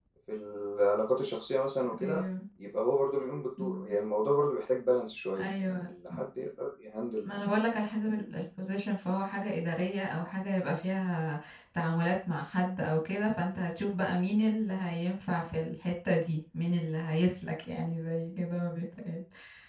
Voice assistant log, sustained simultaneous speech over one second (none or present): none